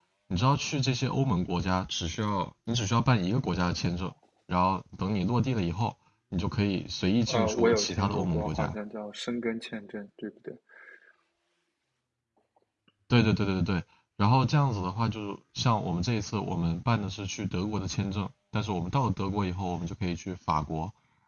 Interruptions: present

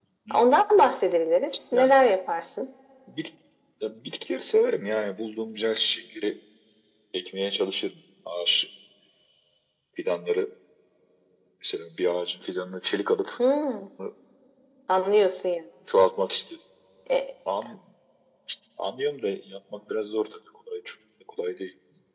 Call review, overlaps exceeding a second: none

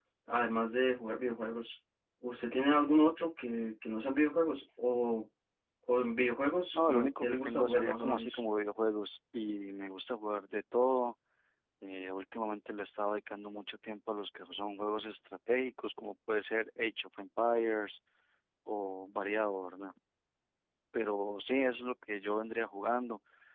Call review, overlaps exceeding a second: present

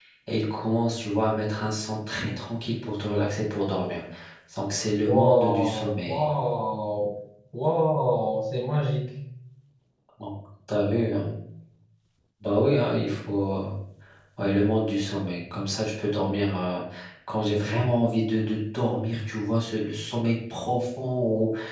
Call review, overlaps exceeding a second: present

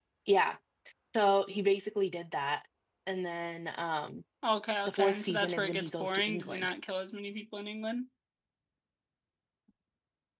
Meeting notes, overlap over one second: present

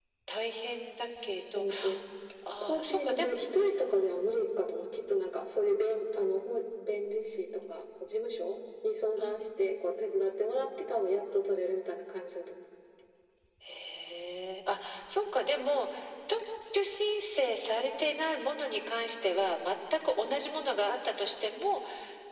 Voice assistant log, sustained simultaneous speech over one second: present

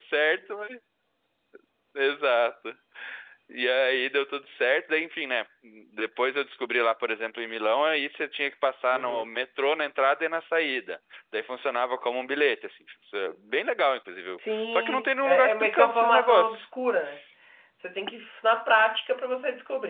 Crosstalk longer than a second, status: present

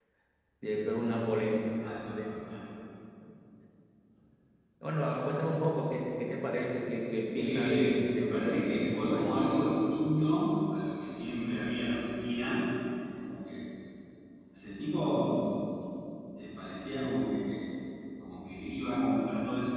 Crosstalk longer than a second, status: present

